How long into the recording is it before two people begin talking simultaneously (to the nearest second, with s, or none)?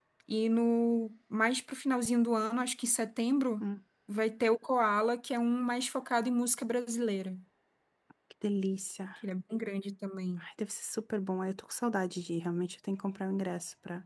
none